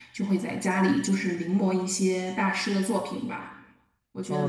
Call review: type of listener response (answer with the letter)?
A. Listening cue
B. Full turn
B